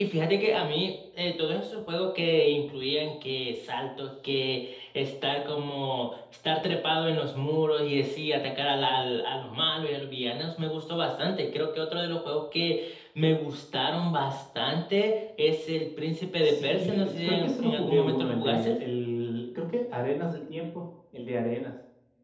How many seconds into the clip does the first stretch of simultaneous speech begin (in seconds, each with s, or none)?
16.4 s